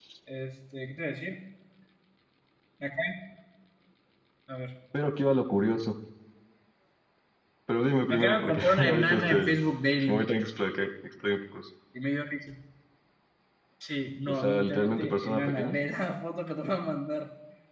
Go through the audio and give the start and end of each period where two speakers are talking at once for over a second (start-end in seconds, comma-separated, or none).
8.1-9.3, 14.3-15.8